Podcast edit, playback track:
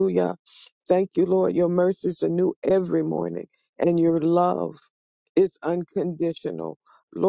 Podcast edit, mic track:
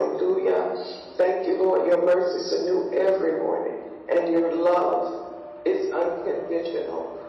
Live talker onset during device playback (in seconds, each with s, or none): none